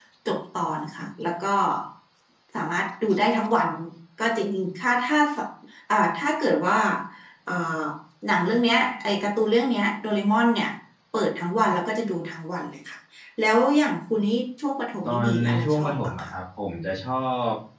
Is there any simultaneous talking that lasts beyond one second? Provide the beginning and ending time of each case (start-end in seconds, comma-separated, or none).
15.0-16.3